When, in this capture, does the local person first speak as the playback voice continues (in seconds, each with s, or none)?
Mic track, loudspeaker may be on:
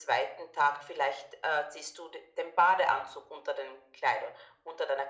none